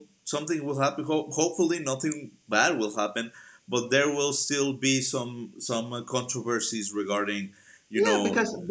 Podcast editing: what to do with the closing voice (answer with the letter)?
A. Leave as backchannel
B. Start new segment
B